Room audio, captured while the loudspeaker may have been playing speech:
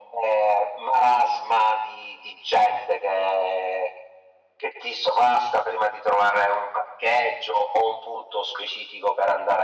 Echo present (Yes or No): Yes